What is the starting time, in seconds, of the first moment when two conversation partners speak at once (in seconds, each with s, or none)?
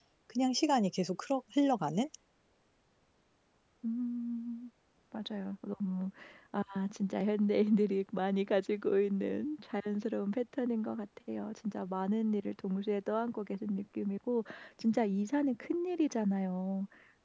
none